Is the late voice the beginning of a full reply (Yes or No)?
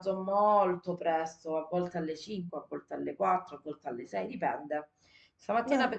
No